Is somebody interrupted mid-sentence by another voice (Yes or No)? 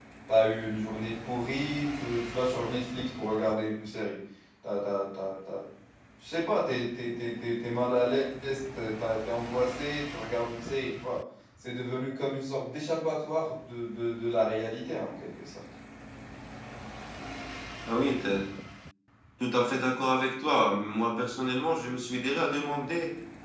No